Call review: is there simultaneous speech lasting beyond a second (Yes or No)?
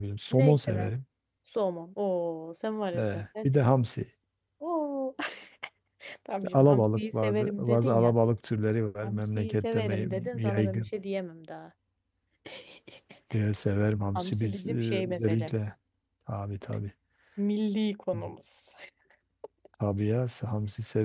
Yes